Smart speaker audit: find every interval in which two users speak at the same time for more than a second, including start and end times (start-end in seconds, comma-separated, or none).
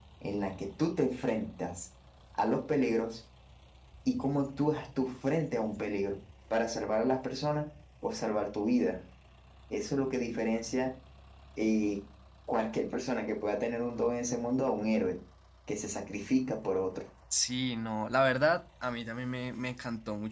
none